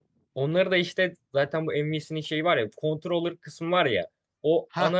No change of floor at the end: Yes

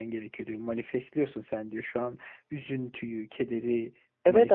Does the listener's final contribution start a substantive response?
Yes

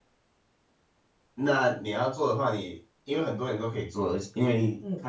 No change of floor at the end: Yes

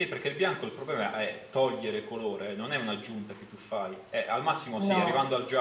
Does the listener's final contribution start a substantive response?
No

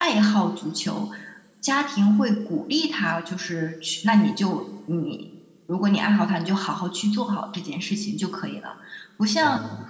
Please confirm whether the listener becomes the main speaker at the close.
No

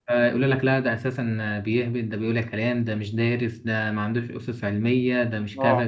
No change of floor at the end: Yes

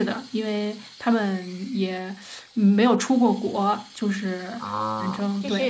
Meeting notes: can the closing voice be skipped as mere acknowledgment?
No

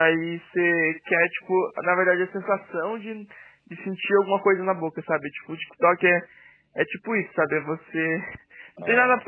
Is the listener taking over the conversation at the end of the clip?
No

